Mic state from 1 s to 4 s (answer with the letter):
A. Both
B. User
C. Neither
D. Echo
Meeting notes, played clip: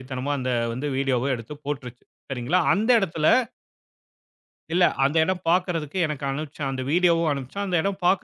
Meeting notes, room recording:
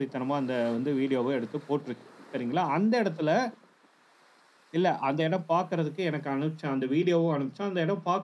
D